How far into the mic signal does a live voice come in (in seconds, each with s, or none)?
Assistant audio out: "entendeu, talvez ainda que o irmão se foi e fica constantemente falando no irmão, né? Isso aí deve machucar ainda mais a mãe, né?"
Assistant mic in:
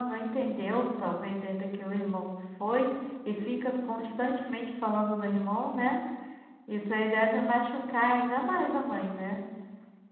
none